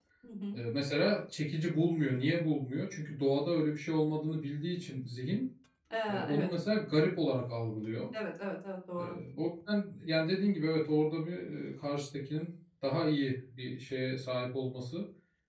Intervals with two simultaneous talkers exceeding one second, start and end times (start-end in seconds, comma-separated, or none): none